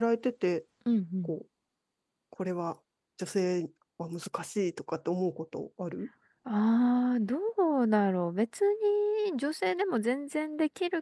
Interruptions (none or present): none